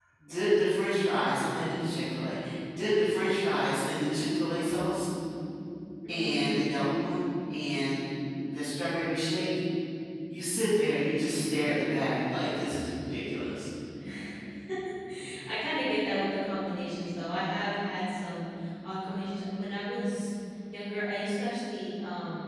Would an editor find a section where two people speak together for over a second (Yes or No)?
No